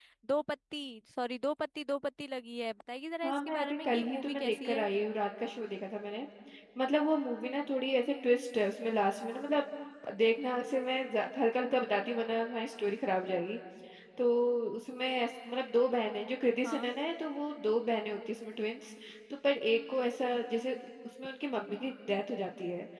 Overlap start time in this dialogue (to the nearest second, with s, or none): 3 s